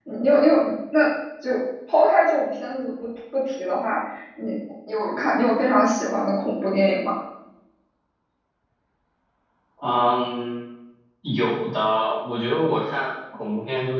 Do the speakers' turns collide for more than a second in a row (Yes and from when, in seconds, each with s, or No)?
No